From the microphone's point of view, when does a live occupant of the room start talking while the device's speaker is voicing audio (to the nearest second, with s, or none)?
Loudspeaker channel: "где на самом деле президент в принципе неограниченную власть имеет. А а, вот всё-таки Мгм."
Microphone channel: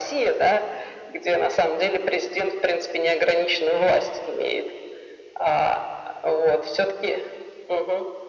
none